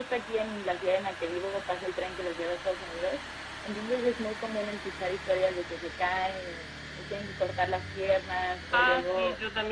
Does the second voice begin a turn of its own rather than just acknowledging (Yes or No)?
Yes